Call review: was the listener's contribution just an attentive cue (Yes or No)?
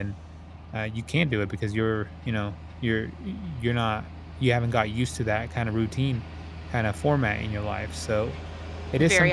No